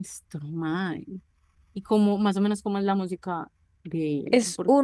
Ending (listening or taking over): taking over